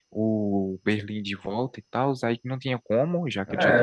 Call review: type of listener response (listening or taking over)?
taking over